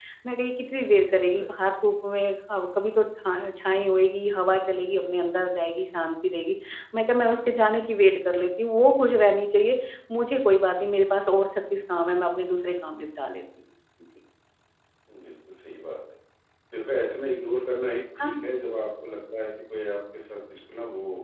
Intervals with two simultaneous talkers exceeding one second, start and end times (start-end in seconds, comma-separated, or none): none